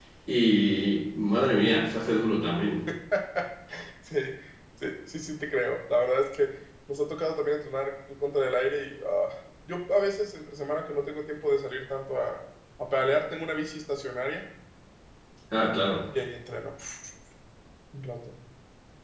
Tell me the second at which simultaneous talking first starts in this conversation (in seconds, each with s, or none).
none